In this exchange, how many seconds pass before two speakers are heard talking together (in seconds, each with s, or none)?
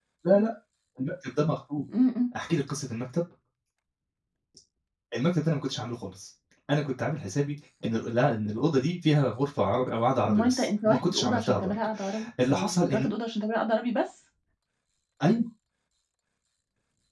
10.3 s